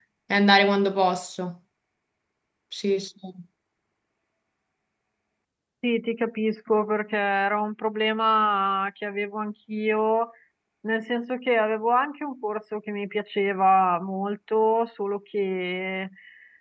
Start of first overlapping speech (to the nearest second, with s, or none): none